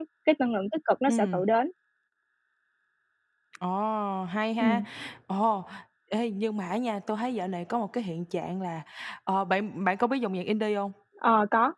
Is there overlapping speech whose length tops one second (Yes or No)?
No